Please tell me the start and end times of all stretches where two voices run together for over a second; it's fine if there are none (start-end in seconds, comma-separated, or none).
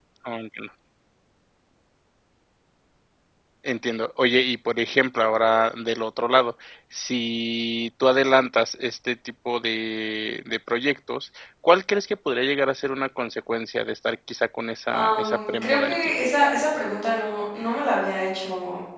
14.9-16.1